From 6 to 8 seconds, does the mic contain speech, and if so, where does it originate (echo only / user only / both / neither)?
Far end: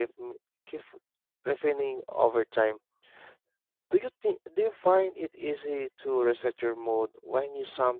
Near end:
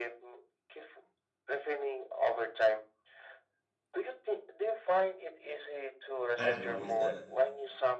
both